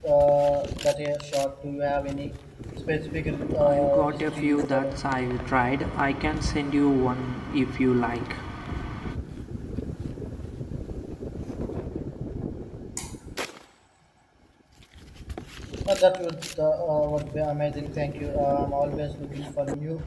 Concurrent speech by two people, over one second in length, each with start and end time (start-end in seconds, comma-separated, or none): 3.6-5.0